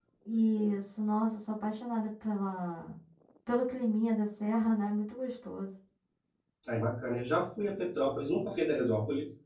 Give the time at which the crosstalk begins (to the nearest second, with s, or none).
none